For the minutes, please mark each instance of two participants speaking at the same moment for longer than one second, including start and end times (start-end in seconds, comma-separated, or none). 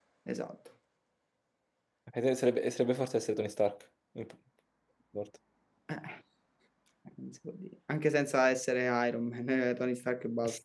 none